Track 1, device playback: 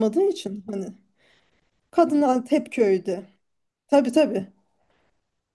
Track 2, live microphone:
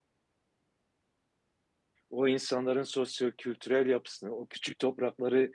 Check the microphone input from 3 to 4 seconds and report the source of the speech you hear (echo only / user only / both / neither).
user only